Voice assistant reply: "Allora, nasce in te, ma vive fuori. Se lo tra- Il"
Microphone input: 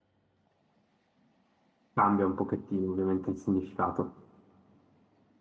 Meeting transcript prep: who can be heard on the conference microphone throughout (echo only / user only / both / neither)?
user only